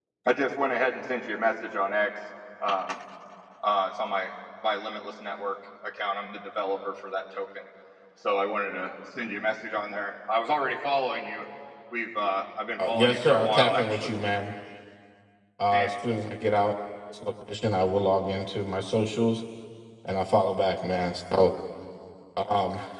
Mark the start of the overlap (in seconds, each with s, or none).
12.8 s